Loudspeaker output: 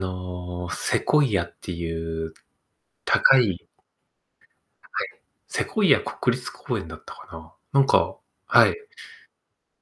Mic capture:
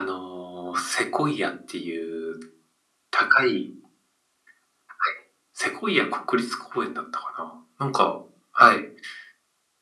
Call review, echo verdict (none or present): present